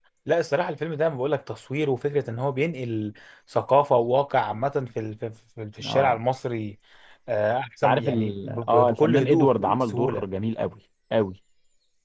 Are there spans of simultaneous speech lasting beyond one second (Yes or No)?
Yes